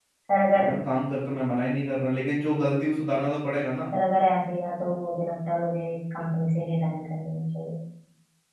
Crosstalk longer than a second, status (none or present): none